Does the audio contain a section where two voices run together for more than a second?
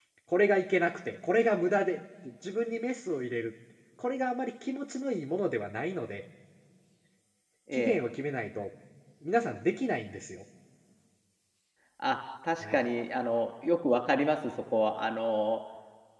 No

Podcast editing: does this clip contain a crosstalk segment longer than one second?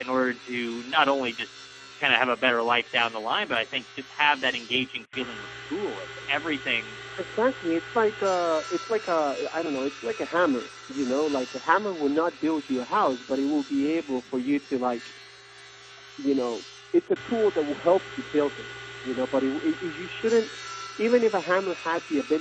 No

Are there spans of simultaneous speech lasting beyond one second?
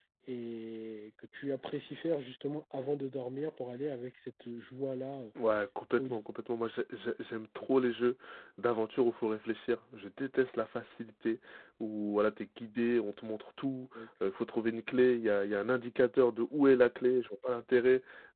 No

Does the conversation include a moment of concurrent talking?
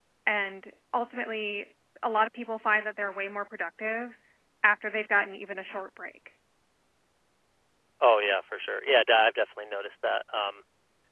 No

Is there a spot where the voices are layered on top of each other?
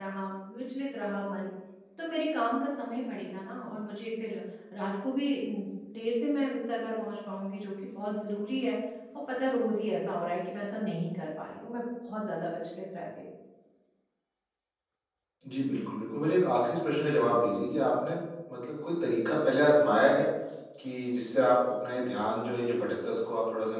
No

